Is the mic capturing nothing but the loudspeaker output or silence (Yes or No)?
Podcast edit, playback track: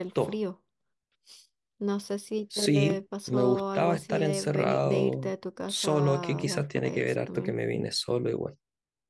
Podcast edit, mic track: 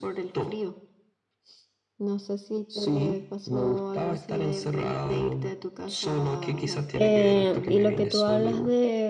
No